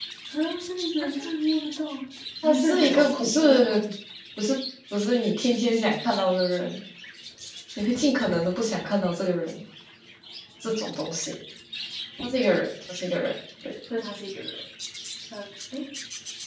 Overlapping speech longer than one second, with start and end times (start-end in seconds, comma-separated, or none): 2.4-3.7